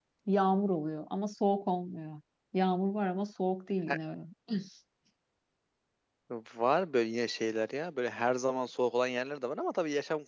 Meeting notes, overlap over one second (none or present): none